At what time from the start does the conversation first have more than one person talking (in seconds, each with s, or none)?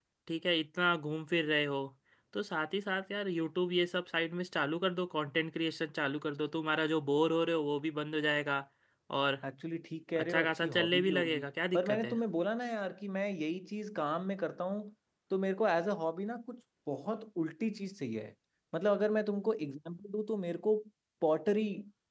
10.2 s